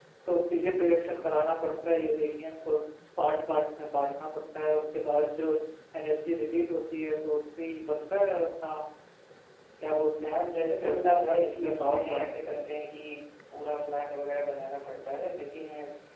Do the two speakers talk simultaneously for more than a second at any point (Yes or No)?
Yes